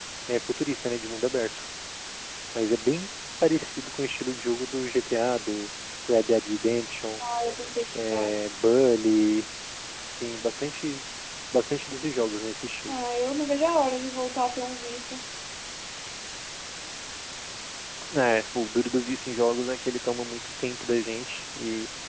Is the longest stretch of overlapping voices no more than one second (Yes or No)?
Yes